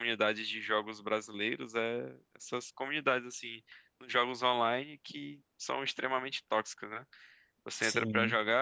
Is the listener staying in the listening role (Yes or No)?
Yes